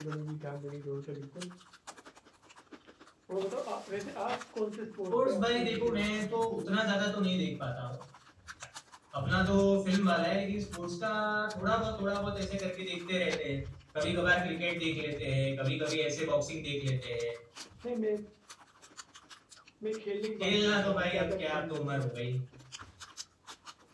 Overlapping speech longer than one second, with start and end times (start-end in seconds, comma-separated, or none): 5.1-6.3, 20.4-22.0